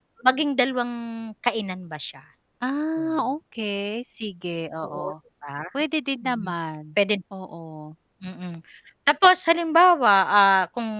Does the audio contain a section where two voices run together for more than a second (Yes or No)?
No